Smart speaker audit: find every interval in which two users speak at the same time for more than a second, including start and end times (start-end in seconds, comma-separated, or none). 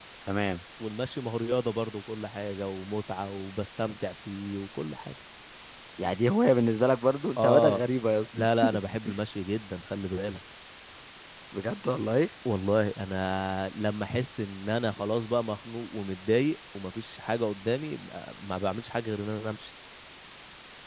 none